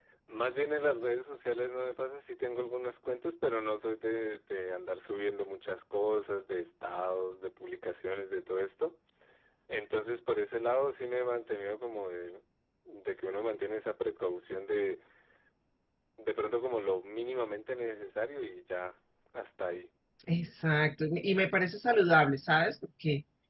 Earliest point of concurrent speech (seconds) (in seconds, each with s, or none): none